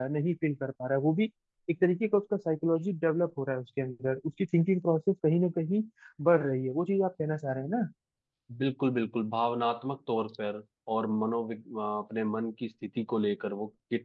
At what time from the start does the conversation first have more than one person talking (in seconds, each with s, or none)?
none